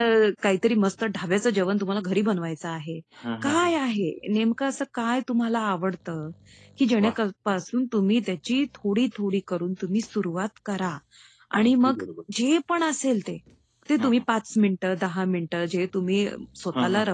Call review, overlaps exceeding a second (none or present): none